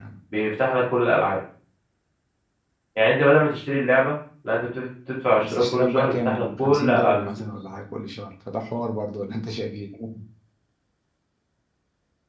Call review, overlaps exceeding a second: present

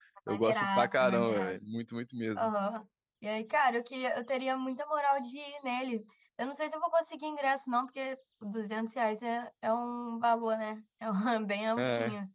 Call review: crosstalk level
present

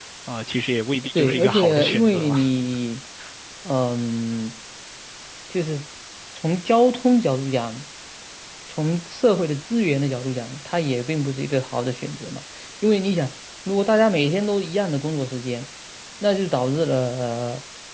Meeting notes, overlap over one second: present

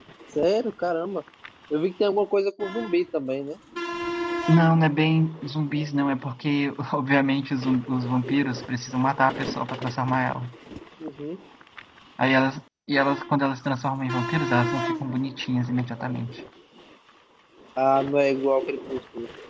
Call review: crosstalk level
none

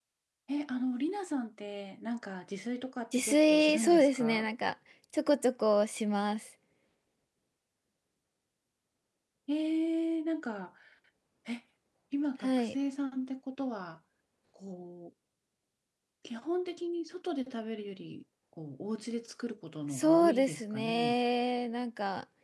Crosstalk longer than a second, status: present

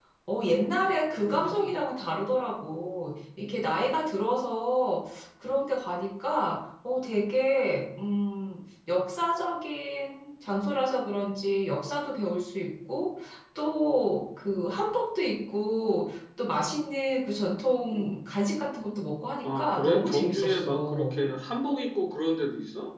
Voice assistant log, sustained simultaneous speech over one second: present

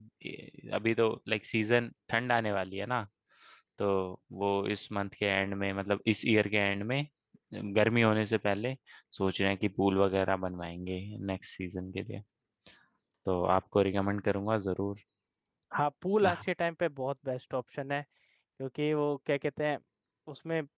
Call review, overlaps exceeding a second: none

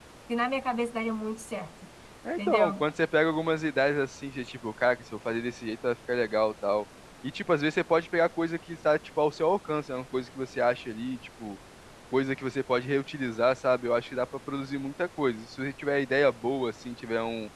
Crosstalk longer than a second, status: none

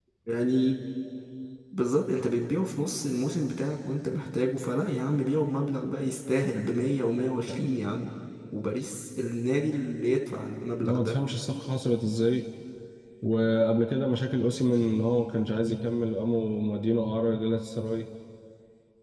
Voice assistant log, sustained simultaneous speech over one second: none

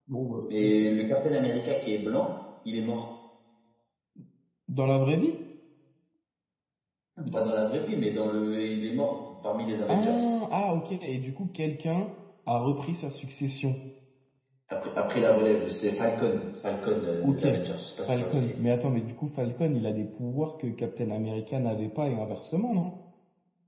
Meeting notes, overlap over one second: none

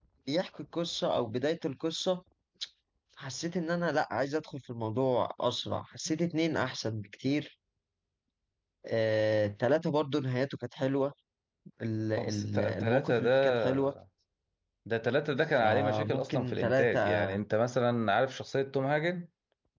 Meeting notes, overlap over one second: present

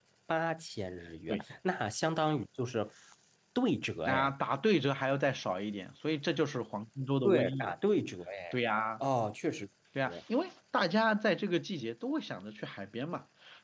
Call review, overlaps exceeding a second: none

